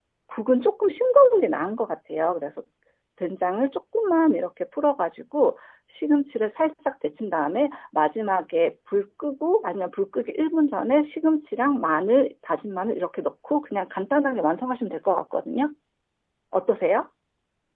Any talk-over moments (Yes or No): No